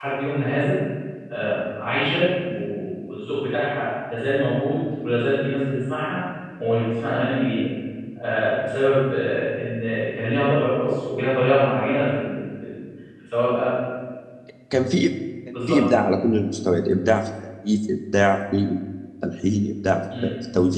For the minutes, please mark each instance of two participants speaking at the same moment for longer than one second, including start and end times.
none

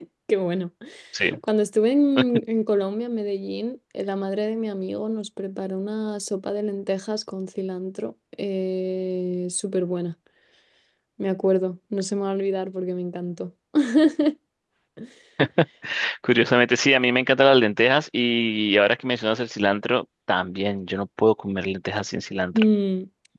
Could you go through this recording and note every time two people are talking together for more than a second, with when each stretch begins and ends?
none

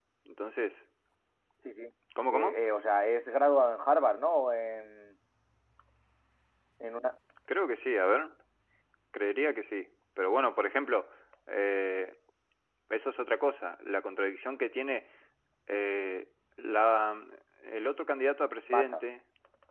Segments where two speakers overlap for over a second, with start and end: none

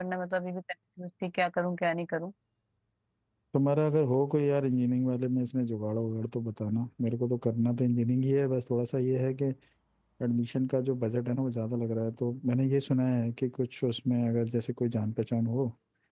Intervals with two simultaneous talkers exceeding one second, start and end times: none

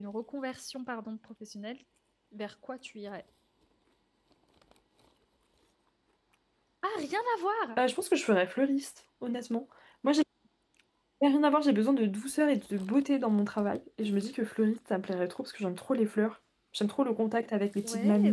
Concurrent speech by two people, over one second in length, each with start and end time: none

